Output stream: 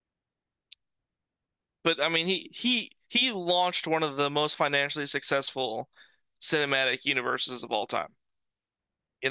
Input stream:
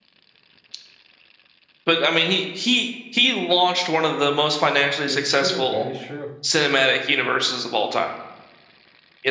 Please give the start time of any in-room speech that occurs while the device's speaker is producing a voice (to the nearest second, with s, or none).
5 s